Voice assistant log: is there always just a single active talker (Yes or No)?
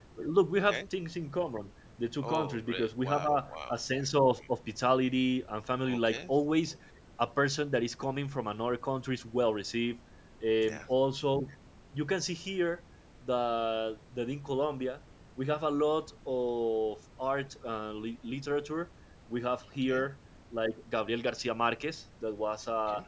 No